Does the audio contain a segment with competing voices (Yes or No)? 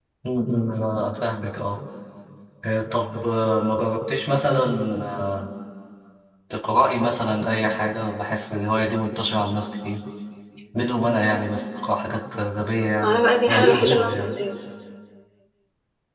Yes